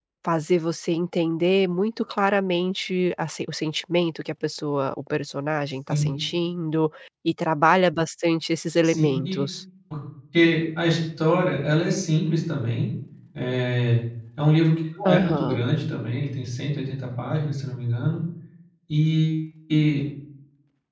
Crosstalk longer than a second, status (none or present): none